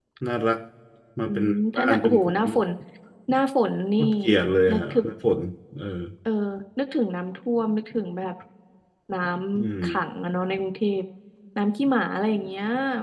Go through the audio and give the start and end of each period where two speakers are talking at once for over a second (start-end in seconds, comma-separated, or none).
1.2-2.5